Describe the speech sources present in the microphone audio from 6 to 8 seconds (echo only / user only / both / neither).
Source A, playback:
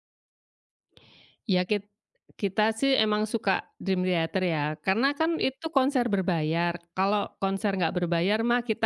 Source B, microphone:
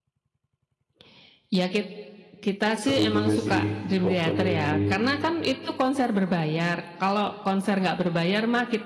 echo only